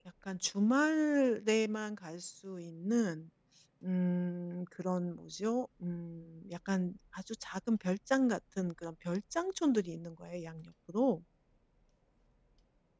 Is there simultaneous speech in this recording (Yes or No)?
No